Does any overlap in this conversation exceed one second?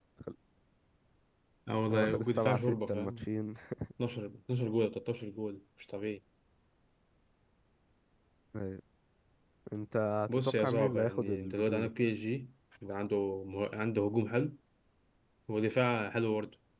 Yes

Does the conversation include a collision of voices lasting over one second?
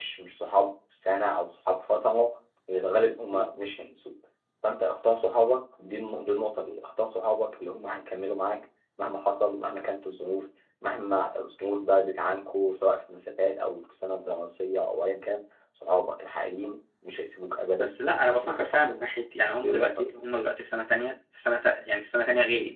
Yes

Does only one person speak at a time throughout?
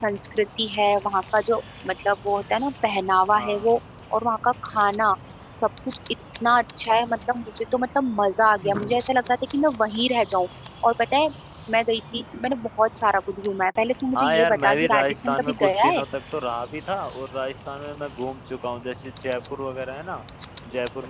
No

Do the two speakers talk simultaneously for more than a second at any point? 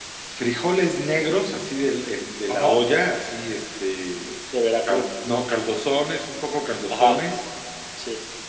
No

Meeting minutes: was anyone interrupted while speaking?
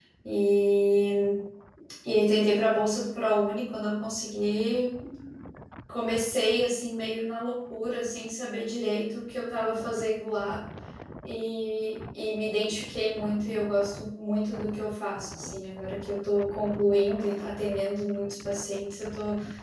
No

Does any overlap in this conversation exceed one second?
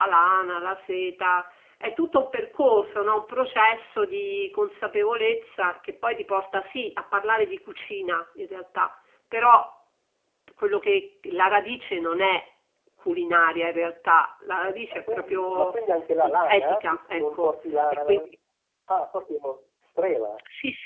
Yes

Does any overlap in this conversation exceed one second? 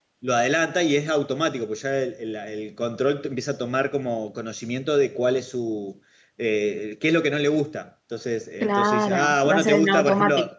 Yes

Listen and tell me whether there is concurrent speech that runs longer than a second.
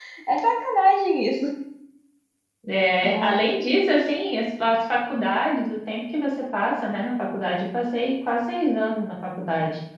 No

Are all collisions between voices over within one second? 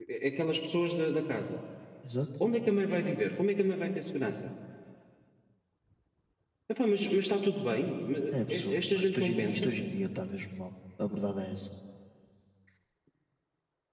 No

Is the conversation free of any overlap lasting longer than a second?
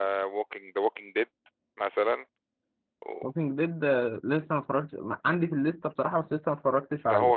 Yes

